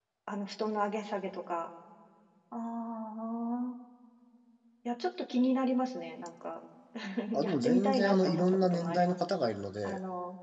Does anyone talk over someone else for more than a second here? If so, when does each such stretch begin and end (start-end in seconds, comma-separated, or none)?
7.4-9.2